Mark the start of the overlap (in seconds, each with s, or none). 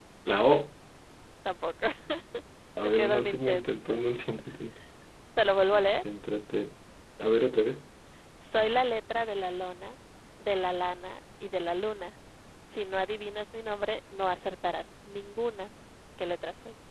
2.8 s